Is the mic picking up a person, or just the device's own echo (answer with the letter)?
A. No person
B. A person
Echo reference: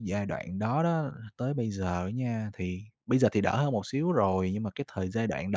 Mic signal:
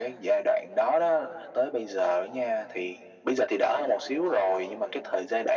A